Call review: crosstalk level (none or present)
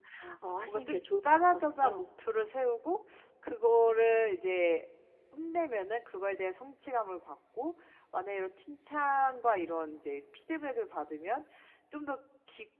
present